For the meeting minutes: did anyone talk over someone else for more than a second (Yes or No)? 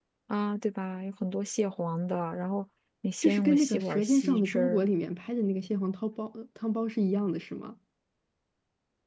Yes